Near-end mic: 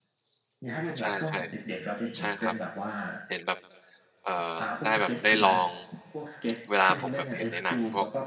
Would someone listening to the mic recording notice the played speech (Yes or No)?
Yes